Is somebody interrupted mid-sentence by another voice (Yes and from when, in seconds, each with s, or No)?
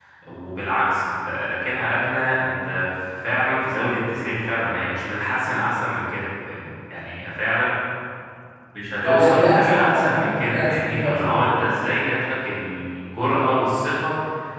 Yes, from 9.0 s